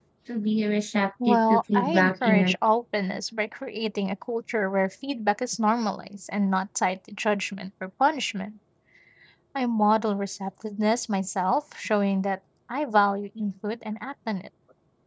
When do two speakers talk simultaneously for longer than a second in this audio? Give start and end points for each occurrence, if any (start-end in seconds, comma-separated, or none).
1.3-2.5